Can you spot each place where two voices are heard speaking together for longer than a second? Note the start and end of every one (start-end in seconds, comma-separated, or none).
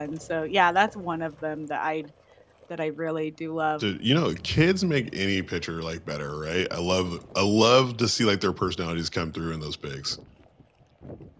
none